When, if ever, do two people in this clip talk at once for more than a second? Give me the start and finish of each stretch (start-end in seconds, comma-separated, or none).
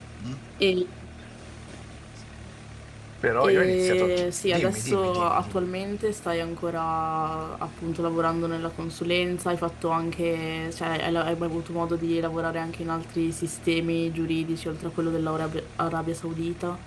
3.4-5.7